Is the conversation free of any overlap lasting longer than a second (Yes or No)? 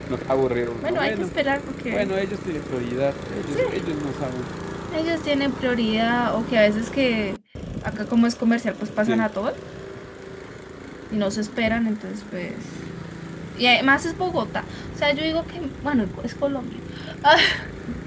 Yes